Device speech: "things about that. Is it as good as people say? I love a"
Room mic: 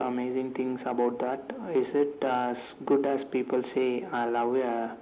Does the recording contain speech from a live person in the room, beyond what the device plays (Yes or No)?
No